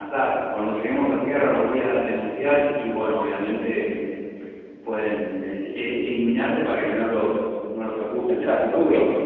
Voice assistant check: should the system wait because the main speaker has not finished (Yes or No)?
No